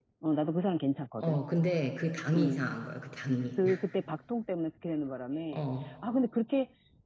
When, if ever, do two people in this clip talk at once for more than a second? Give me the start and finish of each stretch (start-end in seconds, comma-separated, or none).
none